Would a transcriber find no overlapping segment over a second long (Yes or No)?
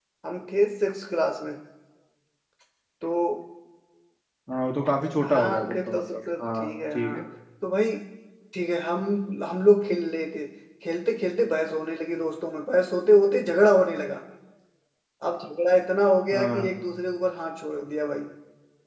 No